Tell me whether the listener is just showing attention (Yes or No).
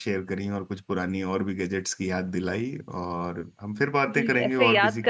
No